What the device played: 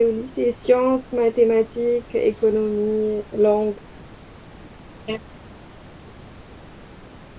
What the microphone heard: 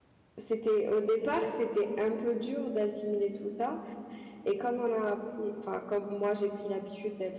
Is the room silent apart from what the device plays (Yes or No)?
No